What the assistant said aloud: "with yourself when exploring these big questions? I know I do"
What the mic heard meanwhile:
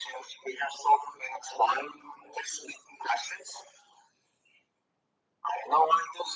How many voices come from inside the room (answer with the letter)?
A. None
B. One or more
A